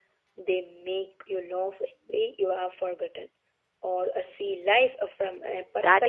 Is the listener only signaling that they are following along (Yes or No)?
No